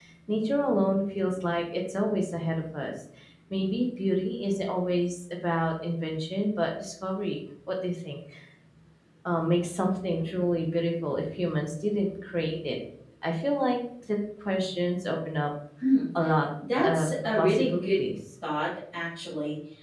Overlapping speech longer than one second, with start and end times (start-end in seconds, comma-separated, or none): 16.8-18.0